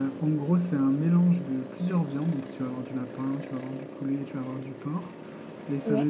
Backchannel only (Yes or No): Yes